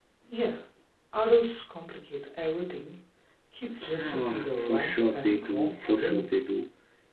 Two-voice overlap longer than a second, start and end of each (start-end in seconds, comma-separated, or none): 4.0-6.3